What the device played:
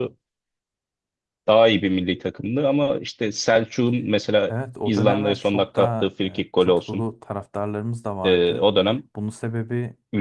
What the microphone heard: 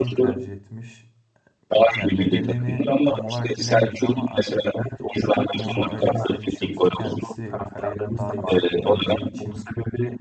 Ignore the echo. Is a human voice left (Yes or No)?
Yes